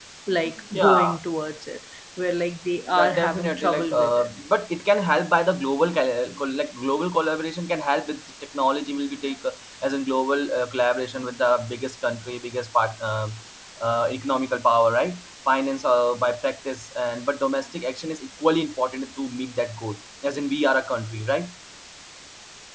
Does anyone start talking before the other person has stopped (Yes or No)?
Yes